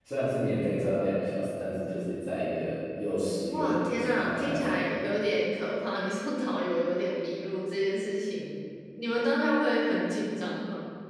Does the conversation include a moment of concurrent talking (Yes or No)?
Yes